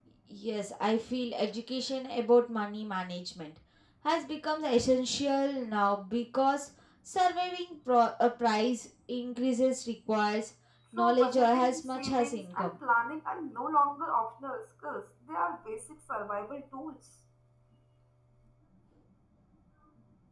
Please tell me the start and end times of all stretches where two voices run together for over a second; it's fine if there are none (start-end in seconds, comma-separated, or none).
11.0-12.7